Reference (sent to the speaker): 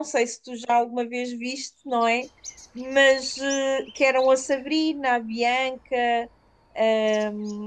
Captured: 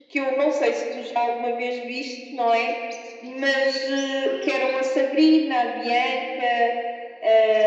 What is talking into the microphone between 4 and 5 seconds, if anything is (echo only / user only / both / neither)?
both